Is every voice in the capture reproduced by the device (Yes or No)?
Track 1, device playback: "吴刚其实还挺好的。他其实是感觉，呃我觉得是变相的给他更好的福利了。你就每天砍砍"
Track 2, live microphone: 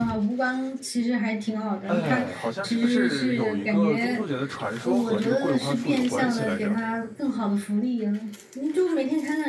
No